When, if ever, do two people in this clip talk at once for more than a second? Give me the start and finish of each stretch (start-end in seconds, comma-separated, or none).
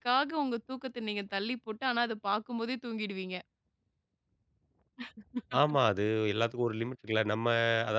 none